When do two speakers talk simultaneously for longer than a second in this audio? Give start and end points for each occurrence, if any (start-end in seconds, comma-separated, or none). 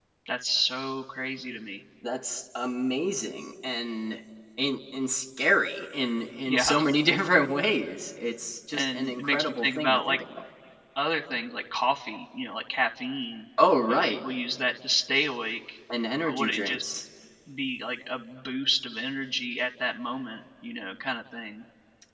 8.7-10.2